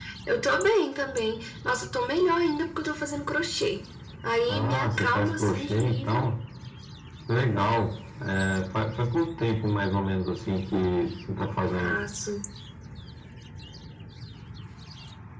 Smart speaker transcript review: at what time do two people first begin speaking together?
4.5 s

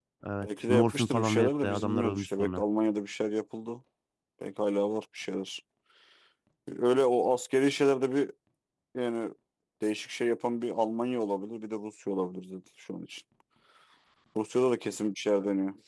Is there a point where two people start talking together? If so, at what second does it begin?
0.7 s

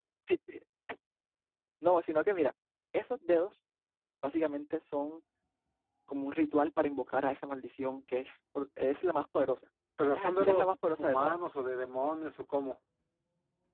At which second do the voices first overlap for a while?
10.1 s

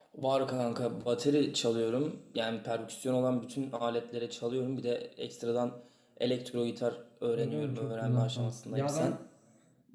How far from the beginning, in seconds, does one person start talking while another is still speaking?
7.4 s

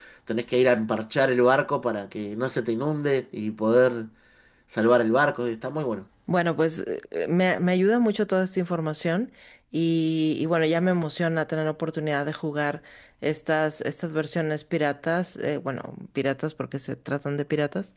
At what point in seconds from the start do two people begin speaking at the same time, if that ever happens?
none

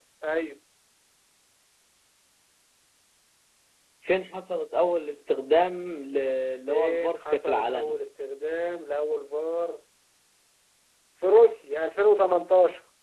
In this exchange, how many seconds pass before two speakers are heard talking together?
6.7 s

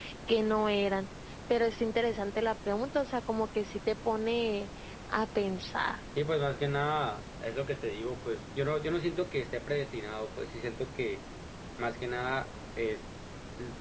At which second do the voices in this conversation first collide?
none

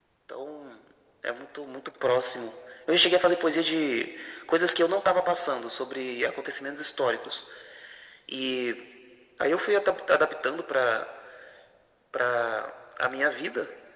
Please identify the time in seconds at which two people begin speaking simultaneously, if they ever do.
none

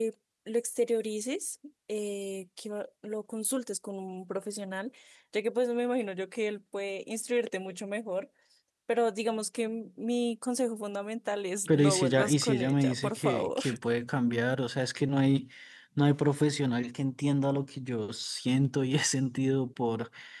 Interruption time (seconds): 11.7 s

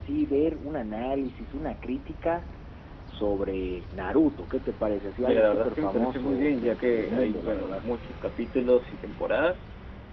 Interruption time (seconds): 5.2 s

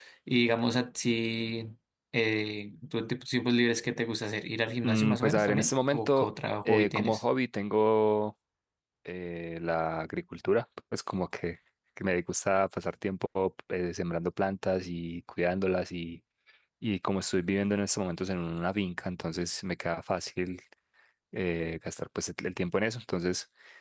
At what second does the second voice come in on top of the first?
4.8 s

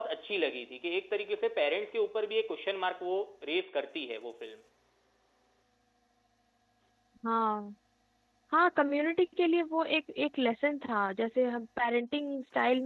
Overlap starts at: none

